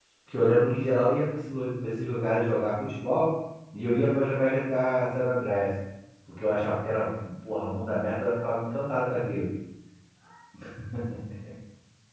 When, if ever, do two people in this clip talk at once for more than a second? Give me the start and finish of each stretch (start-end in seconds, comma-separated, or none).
none